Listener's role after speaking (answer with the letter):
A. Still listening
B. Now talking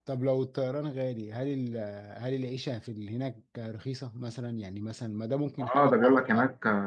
B